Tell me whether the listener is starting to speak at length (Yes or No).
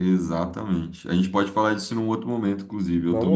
Yes